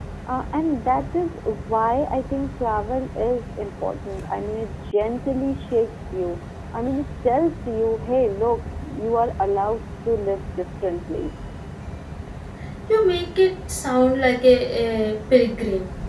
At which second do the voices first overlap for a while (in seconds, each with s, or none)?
none